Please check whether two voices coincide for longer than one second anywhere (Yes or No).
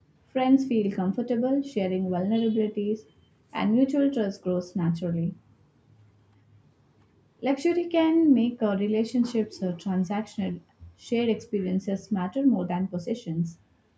No